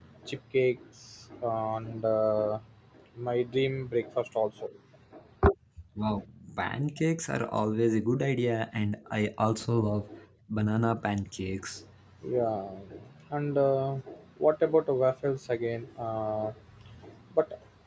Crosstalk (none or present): none